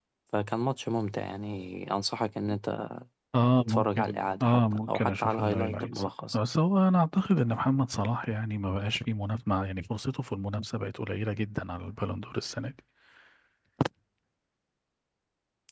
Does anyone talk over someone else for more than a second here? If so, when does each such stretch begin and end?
3.6-6.4

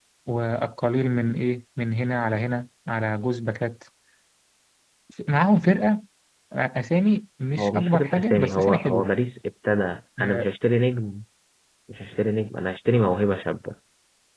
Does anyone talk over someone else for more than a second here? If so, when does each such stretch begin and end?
7.6-9.1

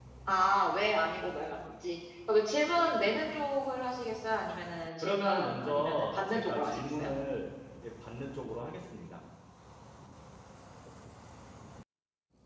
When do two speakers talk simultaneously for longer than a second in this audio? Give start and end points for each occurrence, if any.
5.0-7.1

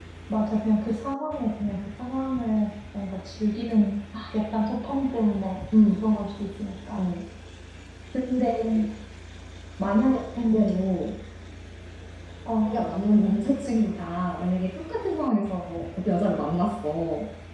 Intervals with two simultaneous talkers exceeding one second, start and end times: none

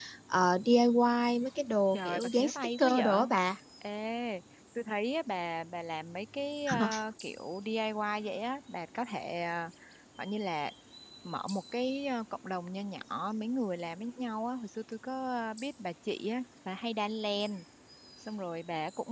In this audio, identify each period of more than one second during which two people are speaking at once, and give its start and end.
1.9-3.2

